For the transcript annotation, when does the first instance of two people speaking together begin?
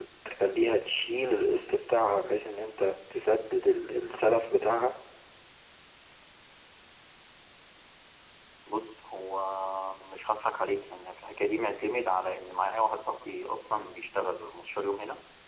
none

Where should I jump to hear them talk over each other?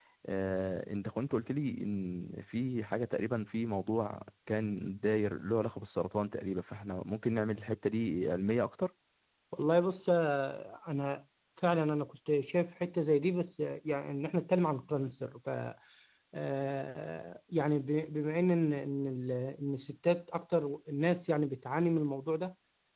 none

